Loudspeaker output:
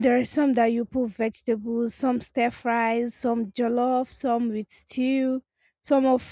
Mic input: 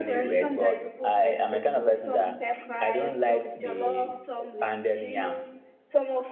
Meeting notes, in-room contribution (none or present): present